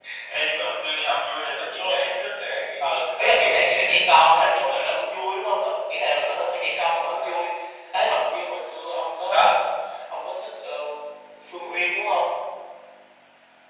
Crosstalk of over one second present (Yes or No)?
Yes